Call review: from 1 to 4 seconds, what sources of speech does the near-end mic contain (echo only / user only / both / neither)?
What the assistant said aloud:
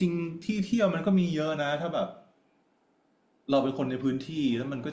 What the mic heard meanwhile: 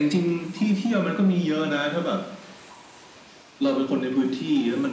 echo only